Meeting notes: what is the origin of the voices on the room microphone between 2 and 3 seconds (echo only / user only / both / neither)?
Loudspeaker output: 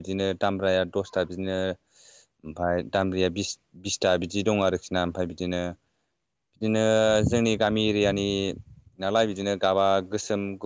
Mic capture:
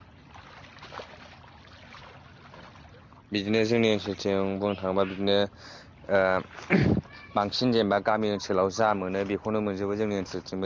neither